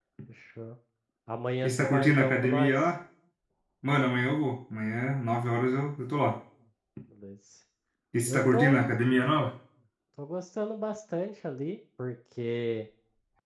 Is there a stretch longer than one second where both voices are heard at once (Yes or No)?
Yes